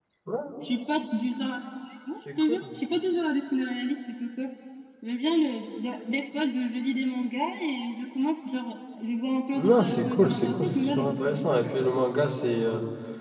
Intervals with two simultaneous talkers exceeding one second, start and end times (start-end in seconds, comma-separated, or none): 9.6-11.4